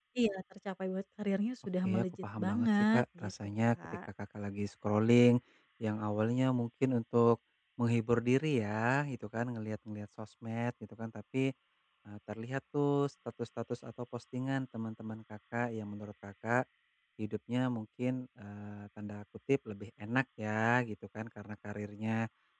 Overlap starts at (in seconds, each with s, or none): 1.8 s